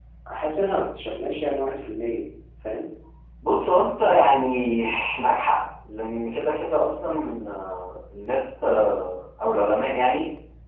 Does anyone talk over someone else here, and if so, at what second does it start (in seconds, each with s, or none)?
none